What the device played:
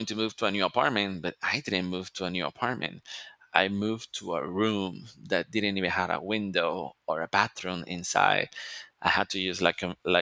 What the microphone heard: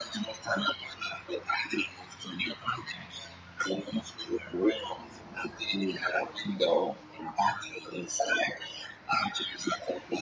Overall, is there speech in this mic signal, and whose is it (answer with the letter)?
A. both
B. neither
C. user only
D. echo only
D